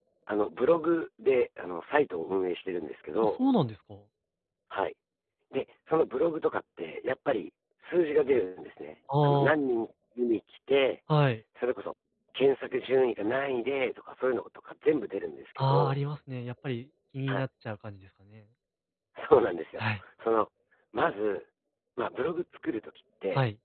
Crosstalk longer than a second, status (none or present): none